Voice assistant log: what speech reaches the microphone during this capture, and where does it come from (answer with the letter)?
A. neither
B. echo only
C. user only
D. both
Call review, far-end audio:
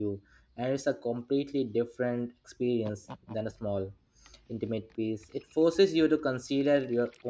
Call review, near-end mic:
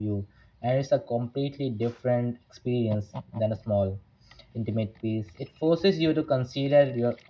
B